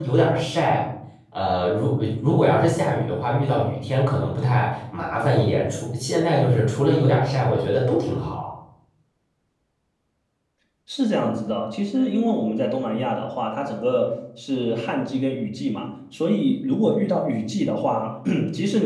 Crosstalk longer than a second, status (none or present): none